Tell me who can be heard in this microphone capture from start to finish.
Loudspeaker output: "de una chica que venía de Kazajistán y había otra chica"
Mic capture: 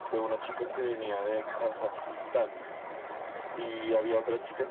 echo only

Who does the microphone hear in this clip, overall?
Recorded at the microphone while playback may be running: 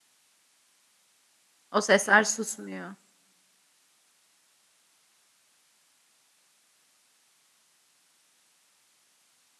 user only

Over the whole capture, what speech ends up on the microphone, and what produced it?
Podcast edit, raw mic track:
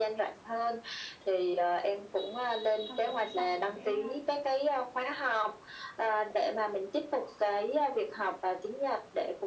both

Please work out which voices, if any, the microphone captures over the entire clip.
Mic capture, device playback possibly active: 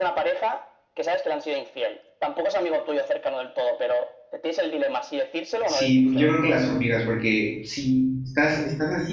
both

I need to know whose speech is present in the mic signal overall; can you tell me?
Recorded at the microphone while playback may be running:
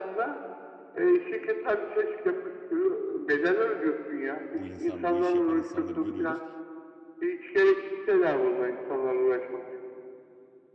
both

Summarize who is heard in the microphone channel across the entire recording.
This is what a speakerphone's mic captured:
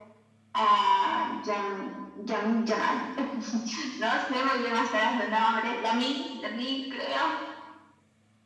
echo only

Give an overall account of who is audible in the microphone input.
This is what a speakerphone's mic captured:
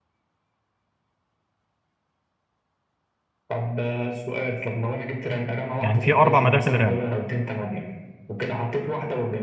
both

